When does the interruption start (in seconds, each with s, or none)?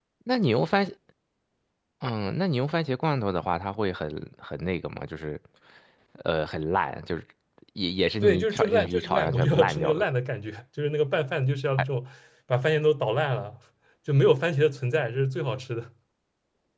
8.2 s